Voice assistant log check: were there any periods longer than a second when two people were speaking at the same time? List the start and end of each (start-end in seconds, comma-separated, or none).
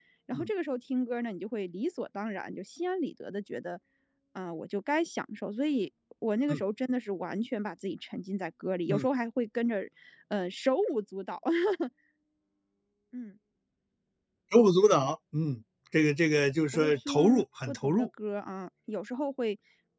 16.7-18.1